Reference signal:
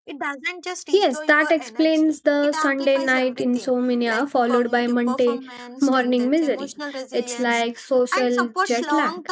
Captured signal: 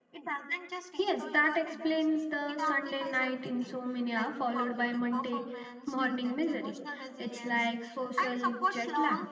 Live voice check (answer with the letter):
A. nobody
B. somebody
A